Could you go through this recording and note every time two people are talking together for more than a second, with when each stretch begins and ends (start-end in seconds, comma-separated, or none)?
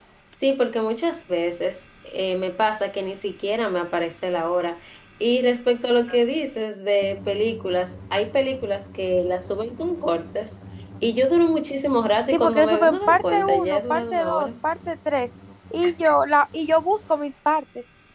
12.3-14.5